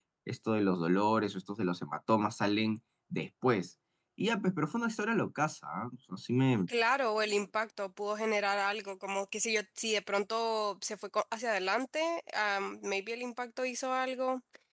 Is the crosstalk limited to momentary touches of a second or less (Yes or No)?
Yes